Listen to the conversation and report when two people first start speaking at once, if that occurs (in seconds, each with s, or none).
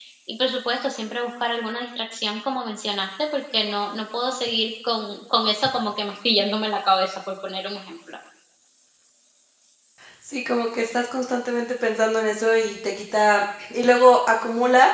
none